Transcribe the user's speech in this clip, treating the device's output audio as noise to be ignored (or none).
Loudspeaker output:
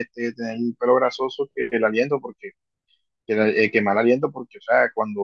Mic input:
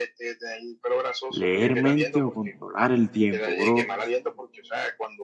¿Leer mente o controlar el tiempo, bro?